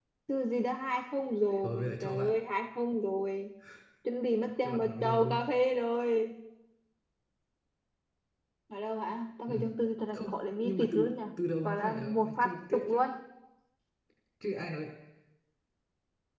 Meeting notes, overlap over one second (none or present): present